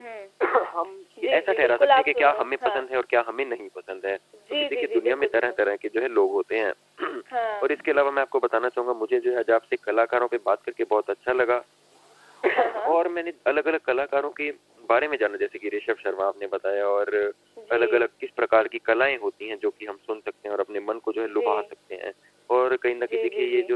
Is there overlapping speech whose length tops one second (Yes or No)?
Yes